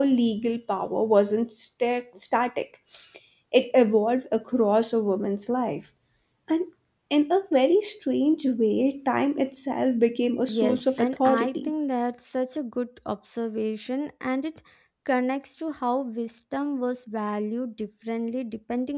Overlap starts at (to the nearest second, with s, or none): 10 s